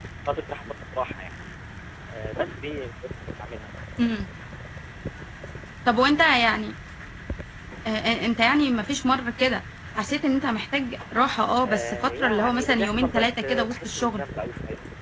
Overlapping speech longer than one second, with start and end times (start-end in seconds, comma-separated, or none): 11.6-14.2